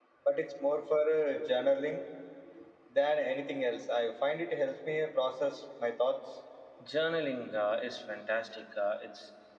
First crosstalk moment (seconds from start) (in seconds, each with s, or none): none